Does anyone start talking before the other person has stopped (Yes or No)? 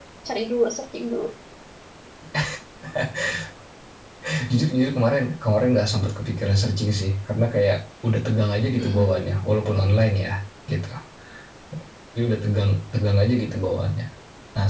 Yes